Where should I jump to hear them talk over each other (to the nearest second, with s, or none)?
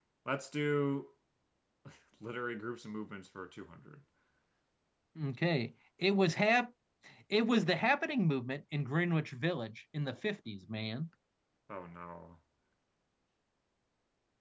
none